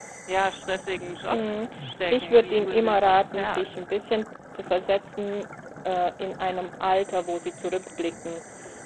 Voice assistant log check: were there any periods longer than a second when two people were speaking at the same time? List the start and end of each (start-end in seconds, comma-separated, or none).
2.1-3.7